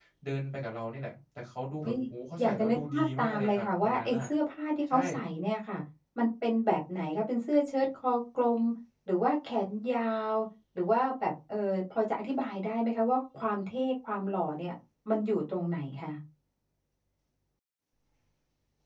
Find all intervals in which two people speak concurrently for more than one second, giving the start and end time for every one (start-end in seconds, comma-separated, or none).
2.4-4.2